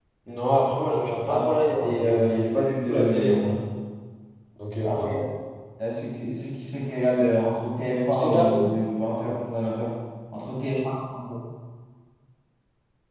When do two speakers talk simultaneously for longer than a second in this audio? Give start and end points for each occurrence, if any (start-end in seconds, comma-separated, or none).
1.3-3.6